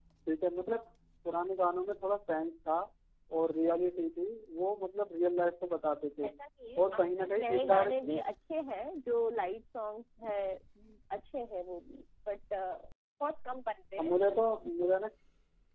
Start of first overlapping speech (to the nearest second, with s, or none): 7 s